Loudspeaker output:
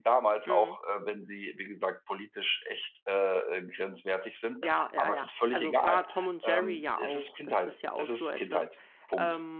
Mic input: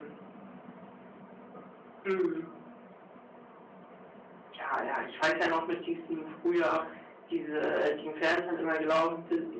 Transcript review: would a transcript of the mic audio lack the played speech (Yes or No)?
Yes